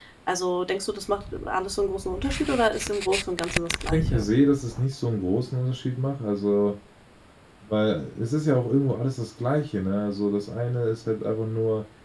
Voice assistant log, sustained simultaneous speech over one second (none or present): none